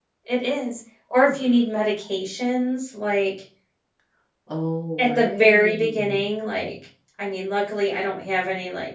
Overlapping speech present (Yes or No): Yes